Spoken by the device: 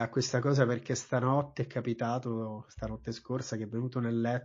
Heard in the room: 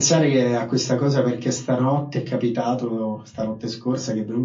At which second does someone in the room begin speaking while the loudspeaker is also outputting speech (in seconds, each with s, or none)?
none